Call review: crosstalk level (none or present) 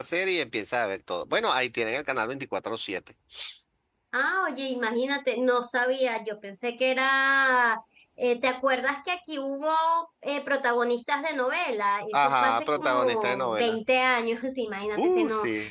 present